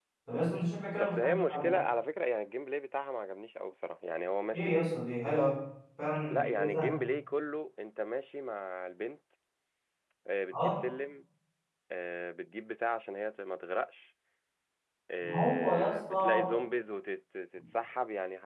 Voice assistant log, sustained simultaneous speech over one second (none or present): present